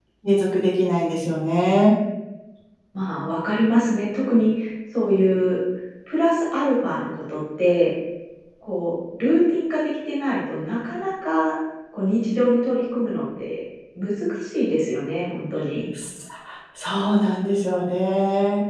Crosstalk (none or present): none